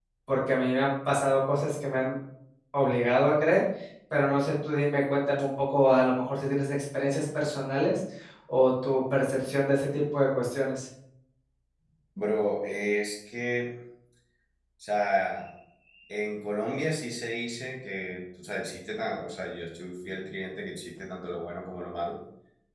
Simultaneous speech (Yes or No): No